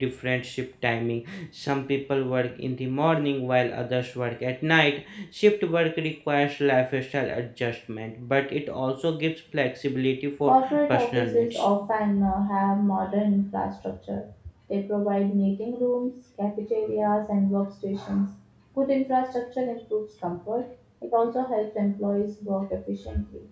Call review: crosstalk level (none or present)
present